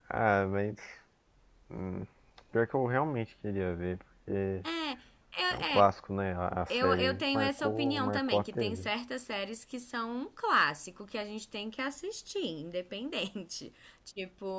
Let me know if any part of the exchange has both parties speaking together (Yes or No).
Yes